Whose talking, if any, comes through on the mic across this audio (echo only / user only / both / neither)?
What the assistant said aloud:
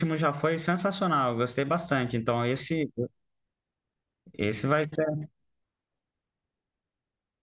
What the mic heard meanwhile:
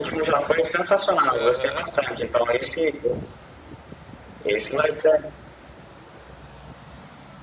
both